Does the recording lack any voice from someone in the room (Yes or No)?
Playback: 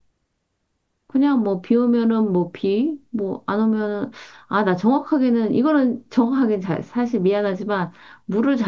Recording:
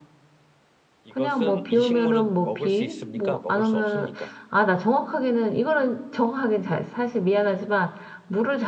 No